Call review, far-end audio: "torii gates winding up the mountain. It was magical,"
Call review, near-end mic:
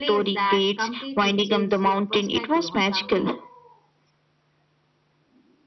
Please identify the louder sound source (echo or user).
echo